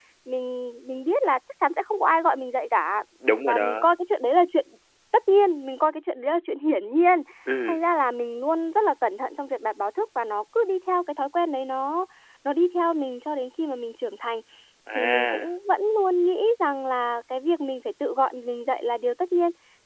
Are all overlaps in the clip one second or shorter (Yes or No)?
Yes